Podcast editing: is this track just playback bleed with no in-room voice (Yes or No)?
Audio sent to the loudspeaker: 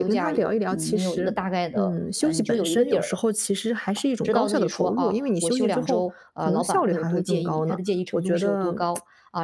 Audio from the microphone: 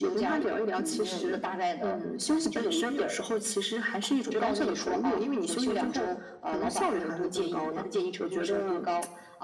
Yes